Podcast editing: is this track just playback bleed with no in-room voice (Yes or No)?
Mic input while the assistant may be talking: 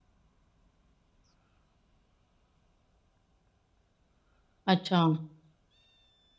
No